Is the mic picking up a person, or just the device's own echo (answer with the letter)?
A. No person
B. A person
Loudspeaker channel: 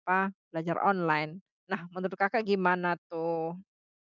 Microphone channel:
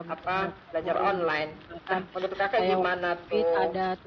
B